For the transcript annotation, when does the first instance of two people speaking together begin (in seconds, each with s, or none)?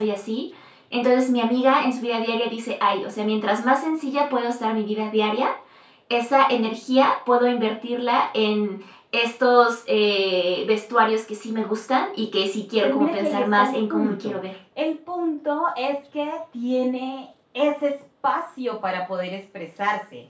12.8 s